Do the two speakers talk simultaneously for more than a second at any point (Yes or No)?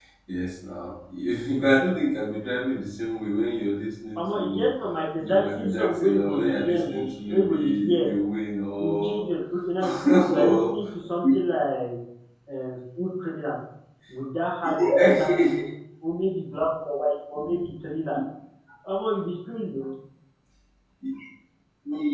Yes